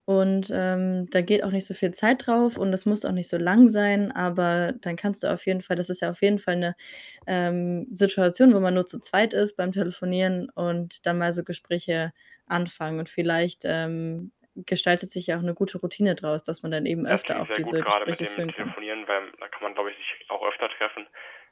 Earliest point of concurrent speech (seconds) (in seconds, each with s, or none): 17.1 s